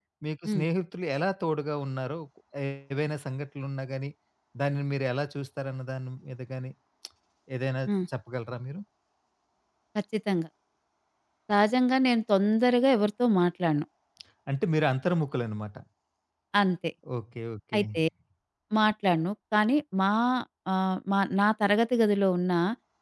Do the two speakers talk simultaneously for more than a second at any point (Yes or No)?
No